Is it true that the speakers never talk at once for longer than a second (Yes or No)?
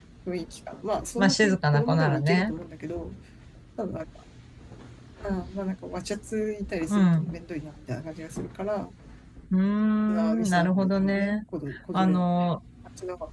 No